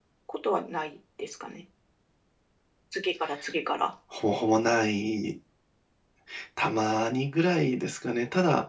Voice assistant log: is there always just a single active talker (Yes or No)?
Yes